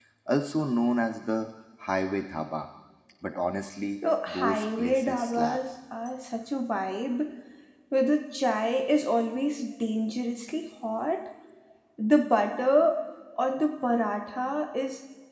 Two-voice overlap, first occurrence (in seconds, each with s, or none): 4.3 s